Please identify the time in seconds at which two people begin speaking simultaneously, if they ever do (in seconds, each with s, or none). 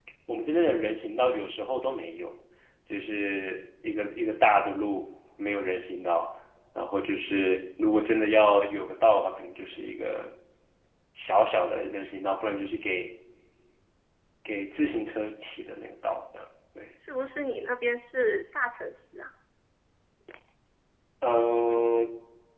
none